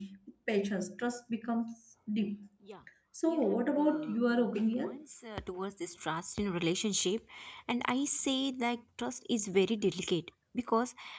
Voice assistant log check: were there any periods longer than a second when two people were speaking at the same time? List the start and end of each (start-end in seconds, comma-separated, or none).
3.3-5.0